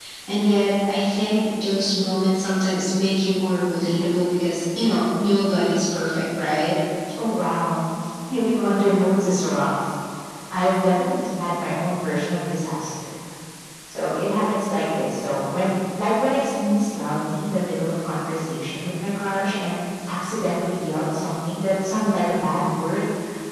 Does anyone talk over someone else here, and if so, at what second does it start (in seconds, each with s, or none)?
none